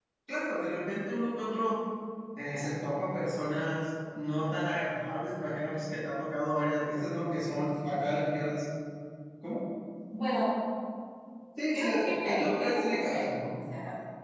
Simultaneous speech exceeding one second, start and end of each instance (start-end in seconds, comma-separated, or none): 11.7-13.3